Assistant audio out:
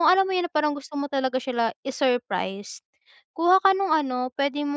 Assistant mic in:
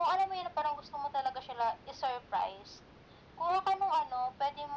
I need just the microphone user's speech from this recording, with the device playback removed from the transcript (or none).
none